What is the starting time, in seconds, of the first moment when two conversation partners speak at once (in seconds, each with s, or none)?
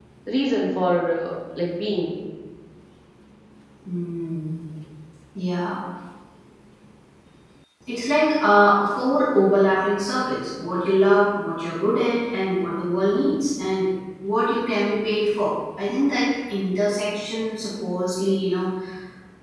none